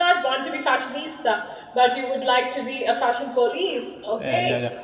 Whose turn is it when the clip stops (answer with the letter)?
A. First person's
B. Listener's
B